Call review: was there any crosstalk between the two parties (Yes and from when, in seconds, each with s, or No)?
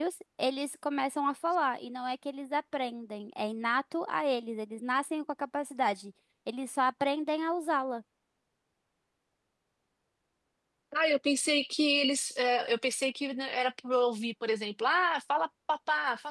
No